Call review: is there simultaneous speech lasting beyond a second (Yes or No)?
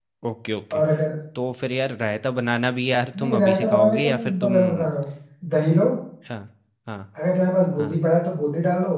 Yes